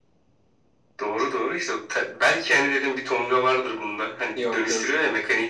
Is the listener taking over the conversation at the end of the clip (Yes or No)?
No